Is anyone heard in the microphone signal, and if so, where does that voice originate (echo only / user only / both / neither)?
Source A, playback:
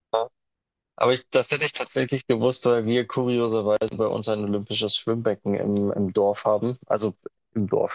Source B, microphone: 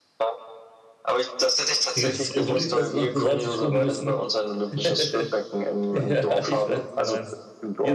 both